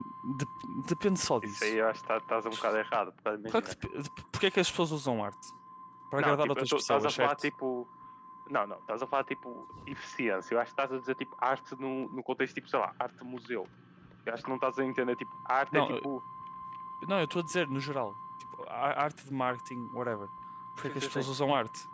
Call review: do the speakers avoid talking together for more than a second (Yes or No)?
No